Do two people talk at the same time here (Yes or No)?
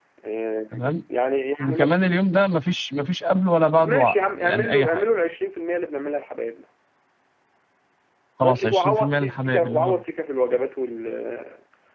Yes